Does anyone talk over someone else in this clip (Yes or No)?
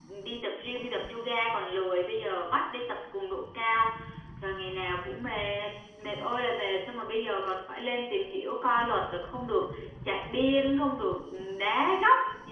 No